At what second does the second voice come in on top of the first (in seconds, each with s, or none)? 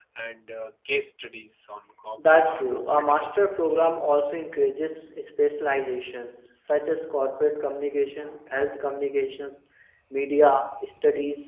2.2 s